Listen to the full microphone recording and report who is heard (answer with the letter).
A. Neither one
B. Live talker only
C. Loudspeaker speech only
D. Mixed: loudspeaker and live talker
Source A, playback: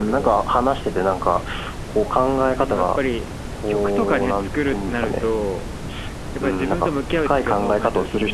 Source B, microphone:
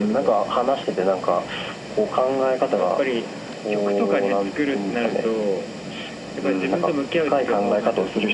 C